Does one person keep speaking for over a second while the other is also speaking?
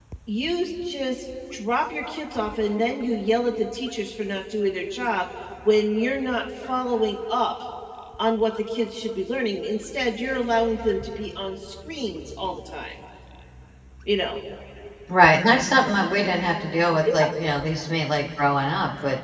No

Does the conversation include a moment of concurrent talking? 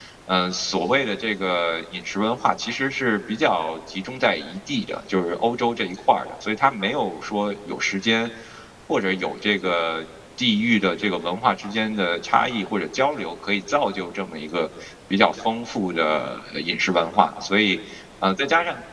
No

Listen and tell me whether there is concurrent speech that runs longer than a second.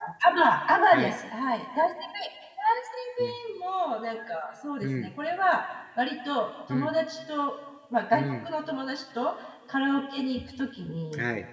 No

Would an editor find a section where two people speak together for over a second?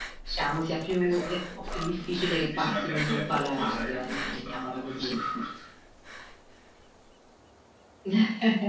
Yes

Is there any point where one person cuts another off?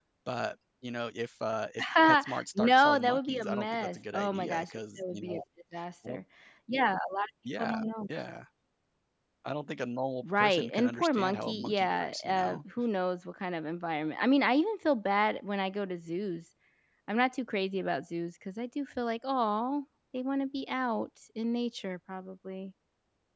Yes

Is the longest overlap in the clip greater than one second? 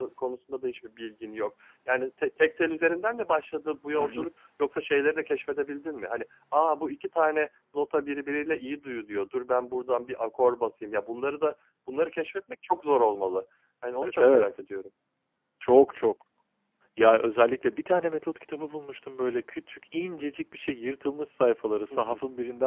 No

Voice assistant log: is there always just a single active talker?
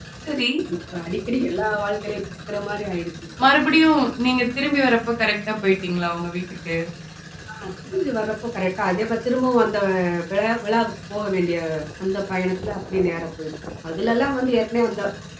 Yes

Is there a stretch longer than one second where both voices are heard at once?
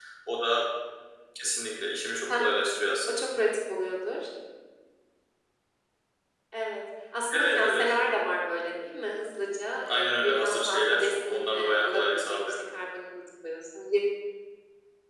Yes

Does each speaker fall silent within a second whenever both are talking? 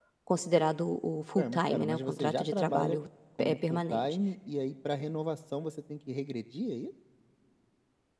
No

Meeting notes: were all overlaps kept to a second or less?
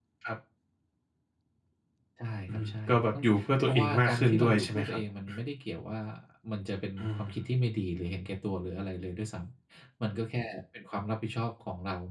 No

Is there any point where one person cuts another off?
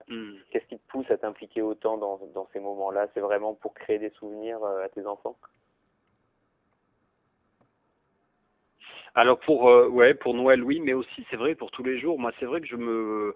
No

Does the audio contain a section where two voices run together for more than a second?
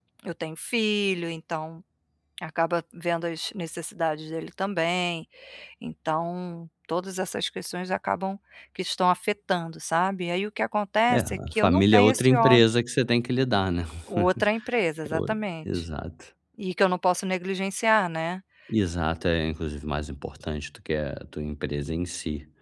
Yes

